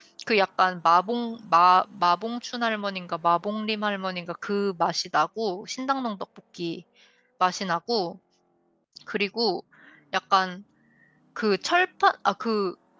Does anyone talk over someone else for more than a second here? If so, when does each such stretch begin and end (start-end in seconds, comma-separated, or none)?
none